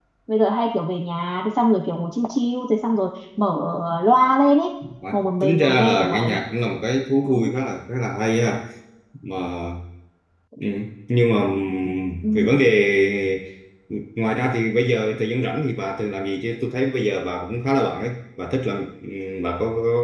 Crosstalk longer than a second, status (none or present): present